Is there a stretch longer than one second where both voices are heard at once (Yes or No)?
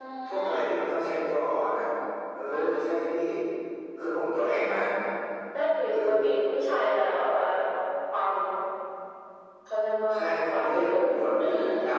Yes